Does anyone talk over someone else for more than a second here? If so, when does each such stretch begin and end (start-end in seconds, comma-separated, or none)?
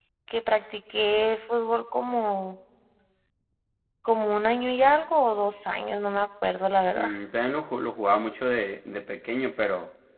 none